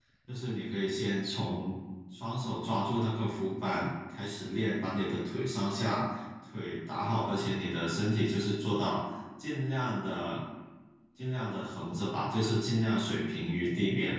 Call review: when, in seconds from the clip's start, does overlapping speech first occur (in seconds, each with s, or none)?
none